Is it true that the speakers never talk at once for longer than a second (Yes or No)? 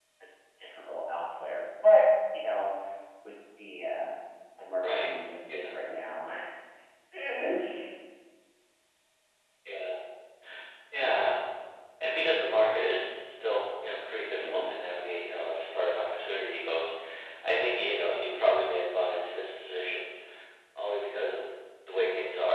Yes